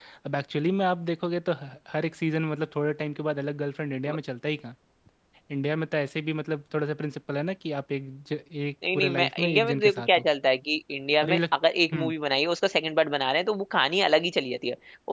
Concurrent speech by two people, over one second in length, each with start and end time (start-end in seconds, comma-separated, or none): 8.9-10.2